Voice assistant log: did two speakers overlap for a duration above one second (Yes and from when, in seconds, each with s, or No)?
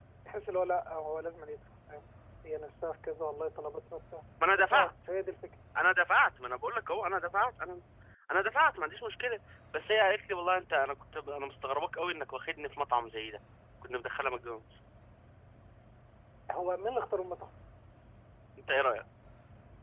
No